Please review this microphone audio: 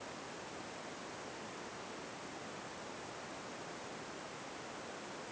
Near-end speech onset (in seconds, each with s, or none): none